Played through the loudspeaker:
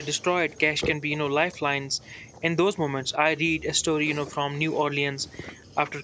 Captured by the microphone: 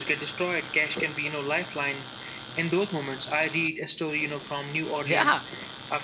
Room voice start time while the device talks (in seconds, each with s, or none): 5.0 s